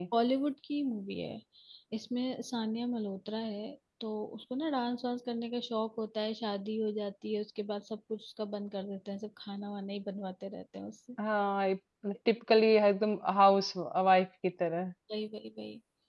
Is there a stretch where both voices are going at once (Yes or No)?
No